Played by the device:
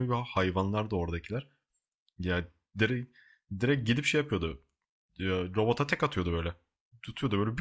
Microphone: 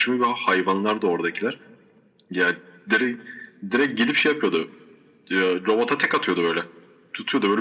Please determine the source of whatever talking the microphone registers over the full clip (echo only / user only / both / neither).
echo only